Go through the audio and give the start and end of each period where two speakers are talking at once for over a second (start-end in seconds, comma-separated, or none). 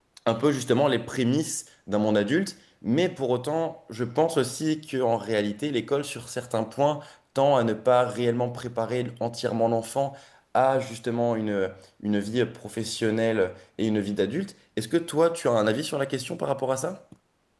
none